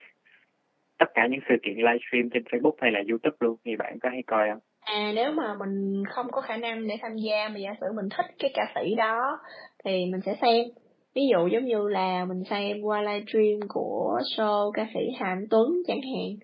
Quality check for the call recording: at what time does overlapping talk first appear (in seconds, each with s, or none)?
none